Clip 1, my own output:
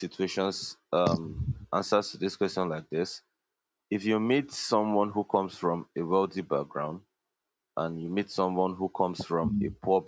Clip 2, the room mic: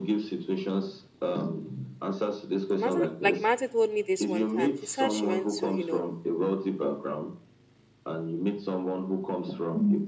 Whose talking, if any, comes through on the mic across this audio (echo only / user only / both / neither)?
both